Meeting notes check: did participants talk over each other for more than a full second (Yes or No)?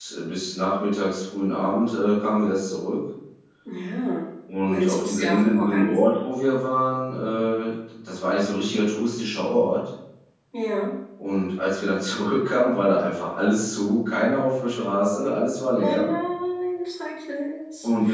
Yes